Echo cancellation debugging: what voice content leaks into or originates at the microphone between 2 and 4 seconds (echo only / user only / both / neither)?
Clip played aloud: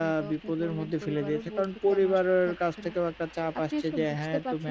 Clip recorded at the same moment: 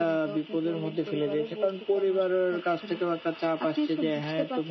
echo only